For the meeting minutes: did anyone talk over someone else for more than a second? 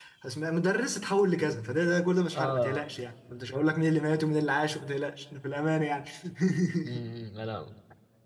No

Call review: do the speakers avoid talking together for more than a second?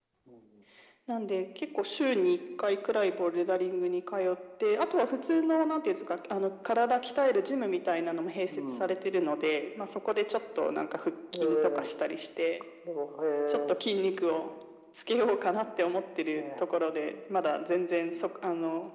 Yes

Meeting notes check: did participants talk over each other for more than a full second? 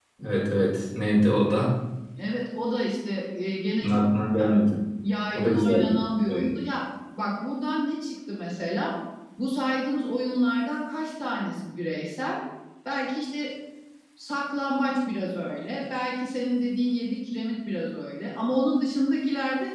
Yes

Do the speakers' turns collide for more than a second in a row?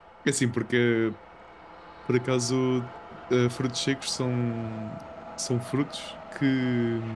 No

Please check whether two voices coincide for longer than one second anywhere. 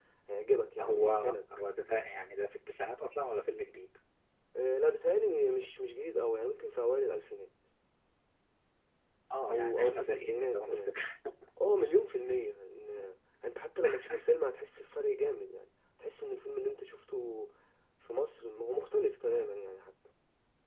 Yes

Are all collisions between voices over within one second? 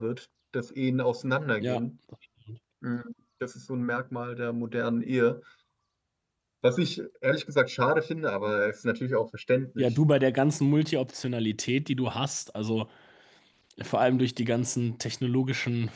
Yes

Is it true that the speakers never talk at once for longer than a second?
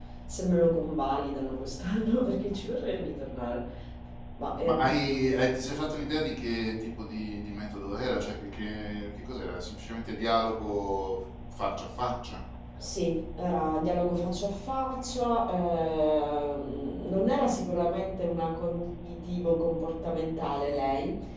Yes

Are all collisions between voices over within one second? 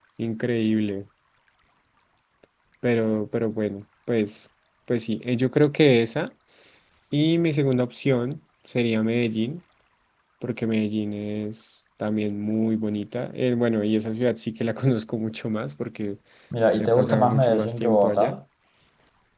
No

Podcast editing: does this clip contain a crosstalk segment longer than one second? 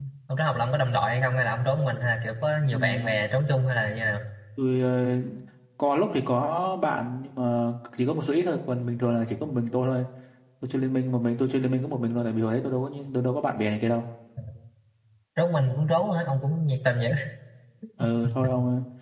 No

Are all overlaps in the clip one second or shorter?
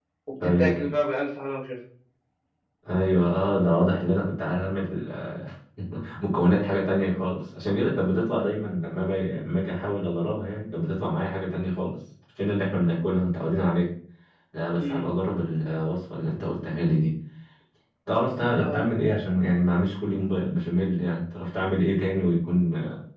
Yes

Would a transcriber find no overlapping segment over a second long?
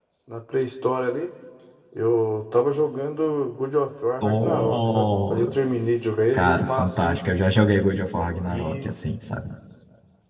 No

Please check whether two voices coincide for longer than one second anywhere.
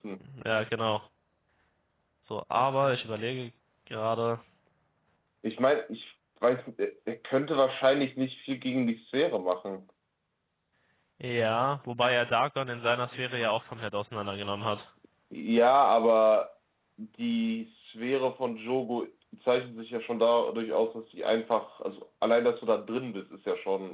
No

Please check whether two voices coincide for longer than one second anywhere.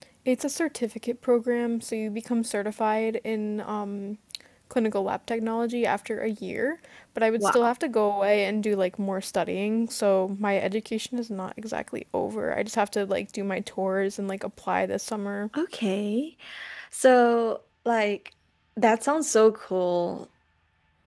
No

